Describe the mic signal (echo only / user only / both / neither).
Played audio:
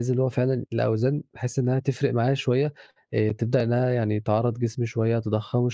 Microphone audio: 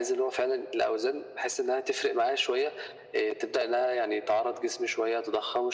echo only